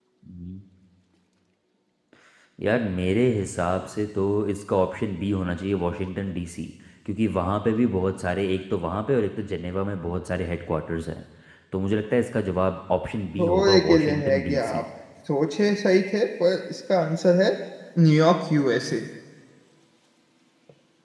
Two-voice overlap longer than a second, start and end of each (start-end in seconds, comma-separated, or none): 13.4-14.8